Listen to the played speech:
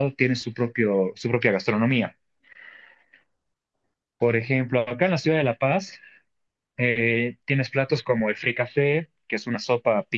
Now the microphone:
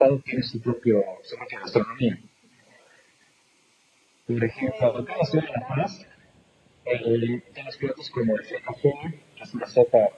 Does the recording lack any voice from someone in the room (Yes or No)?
No